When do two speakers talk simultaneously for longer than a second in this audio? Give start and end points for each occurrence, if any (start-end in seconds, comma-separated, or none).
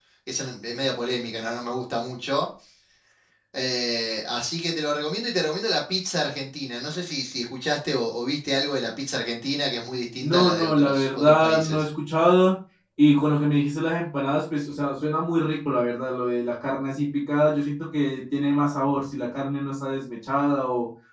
10.2-11.8